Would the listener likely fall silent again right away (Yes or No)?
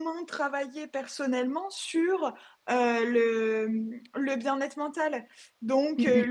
Yes